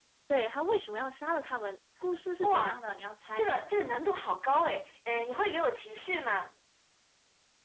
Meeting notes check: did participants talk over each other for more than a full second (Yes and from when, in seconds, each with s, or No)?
No